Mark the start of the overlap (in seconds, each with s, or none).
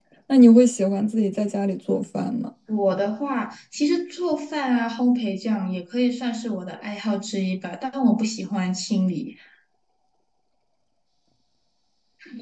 none